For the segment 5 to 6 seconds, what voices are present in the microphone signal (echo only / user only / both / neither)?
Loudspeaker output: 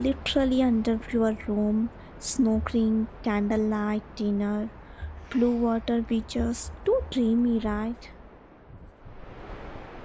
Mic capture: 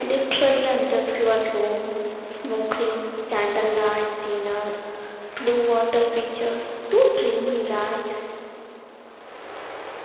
echo only